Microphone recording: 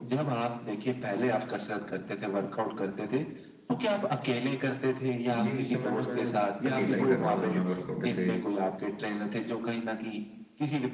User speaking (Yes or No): Yes